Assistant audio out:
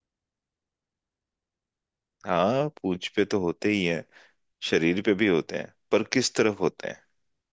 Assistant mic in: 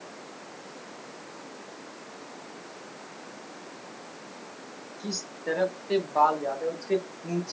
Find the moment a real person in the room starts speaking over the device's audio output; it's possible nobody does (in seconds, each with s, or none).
5.0 s